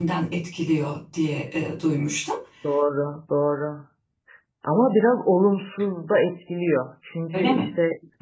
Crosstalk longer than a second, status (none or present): none